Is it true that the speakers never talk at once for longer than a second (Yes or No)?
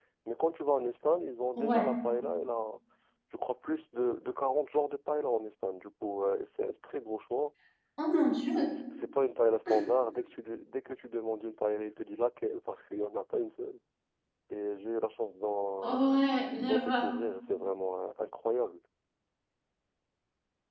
Yes